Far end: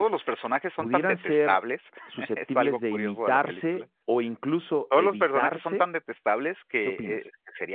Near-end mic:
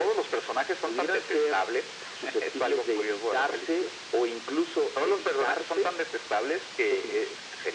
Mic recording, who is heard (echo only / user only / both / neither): echo only